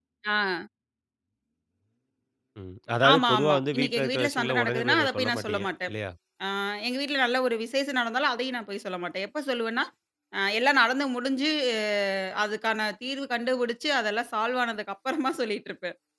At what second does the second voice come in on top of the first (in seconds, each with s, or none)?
3.1 s